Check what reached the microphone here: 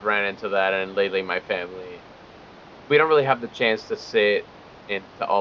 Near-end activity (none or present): present